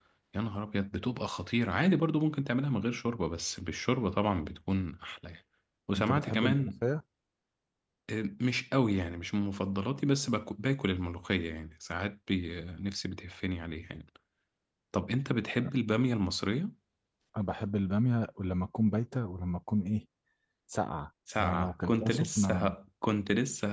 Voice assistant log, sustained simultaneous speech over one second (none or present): present